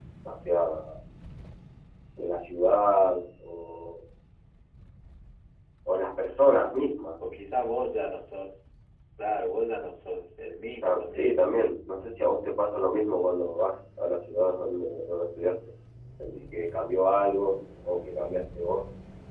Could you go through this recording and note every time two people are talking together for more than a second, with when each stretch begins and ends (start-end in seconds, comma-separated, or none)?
none